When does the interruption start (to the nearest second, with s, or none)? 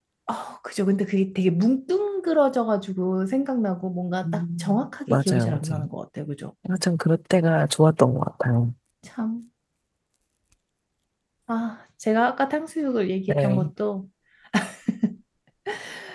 4 s